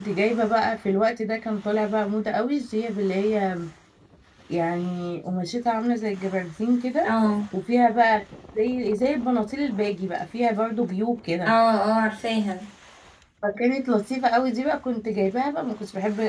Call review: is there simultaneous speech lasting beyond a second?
No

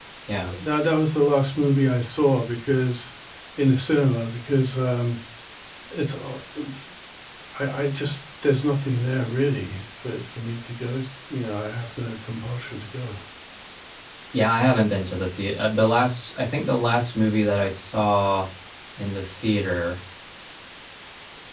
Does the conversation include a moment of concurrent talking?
No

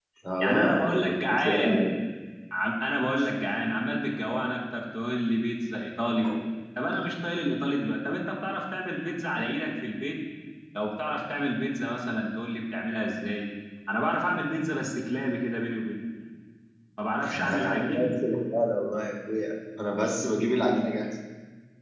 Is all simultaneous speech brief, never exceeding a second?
No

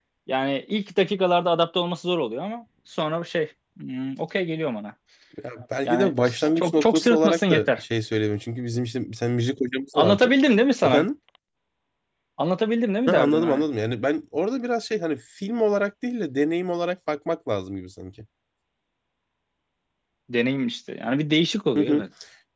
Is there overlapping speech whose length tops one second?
Yes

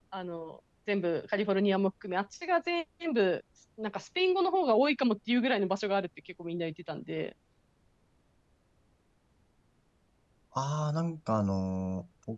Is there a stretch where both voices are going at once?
No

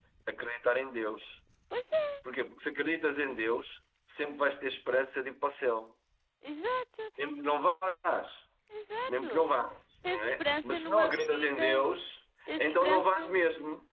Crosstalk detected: Yes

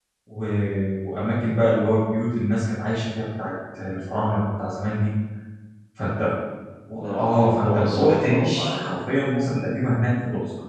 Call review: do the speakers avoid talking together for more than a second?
No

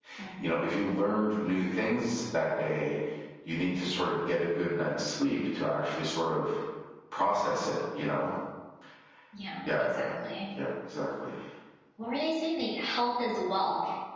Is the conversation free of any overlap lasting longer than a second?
Yes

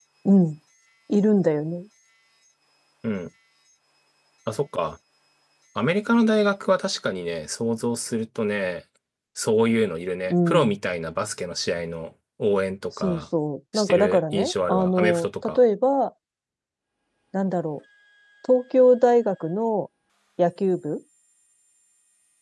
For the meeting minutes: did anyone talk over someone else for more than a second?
Yes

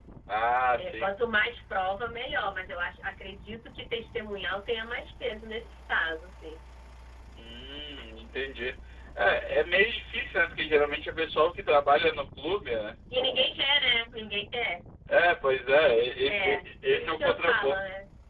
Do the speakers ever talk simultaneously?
Yes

